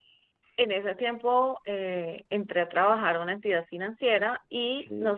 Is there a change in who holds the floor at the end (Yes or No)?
No